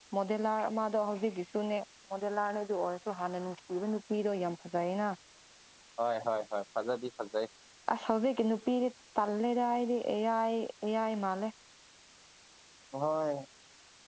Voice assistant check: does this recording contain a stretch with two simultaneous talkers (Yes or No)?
No